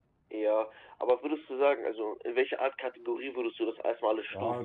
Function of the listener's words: taking over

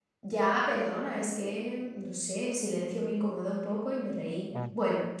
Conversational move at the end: listening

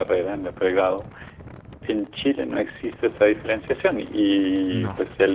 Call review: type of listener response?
listening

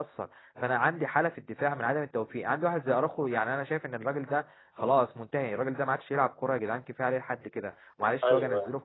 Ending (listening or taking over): listening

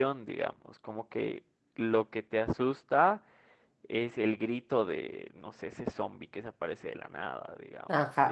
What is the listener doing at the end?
taking over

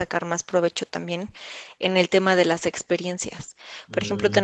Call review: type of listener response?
listening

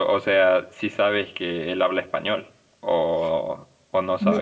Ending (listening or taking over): taking over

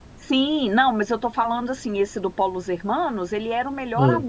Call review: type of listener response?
listening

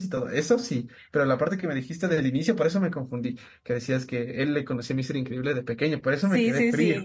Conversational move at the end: taking over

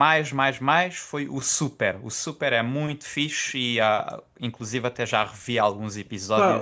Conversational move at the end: taking over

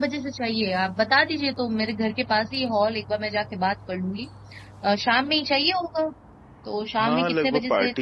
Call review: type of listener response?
taking over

